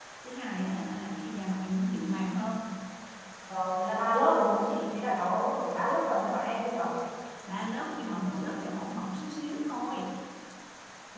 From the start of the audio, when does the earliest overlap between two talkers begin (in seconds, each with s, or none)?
none